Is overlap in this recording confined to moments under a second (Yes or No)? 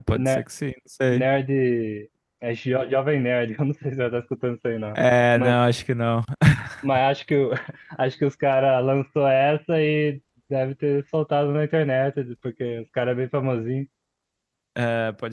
Yes